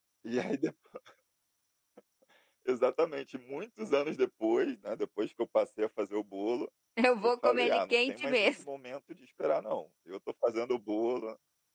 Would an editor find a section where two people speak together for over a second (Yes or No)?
Yes